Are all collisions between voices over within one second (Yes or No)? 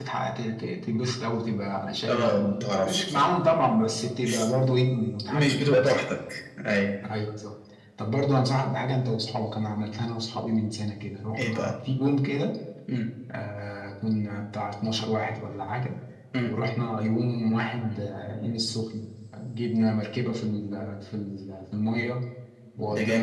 No